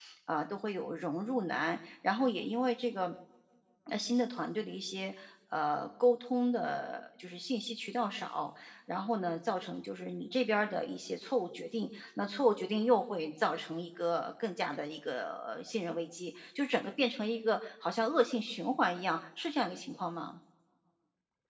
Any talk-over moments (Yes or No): No